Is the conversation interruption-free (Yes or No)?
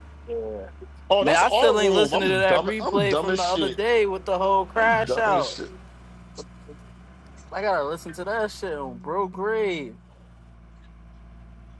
No